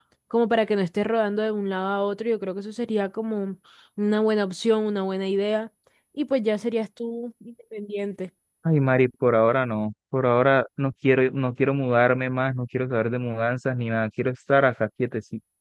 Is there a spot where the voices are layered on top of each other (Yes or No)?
No